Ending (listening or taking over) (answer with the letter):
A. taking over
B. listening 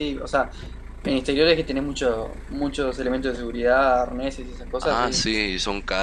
A